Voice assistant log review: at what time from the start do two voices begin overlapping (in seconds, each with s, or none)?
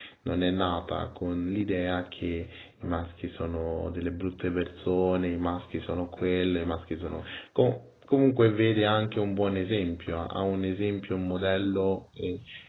none